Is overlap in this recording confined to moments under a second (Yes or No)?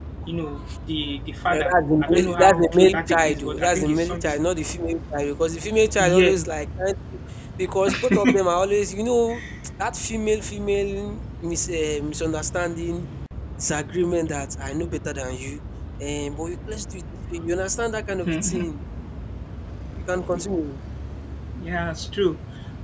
No